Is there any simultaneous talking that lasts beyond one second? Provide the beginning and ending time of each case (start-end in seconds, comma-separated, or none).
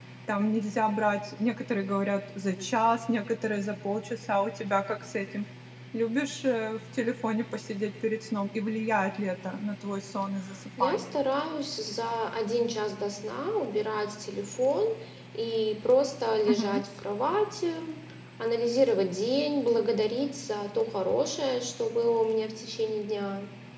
none